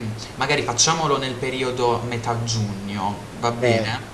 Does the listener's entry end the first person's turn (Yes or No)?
Yes